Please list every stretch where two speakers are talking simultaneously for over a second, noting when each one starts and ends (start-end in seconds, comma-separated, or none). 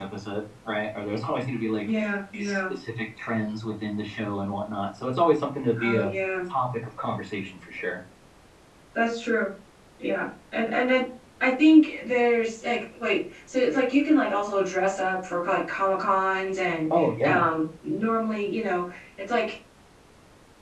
none